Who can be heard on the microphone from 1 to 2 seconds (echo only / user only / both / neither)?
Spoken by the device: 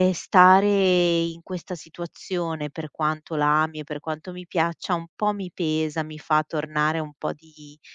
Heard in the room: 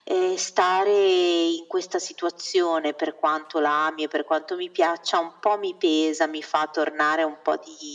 echo only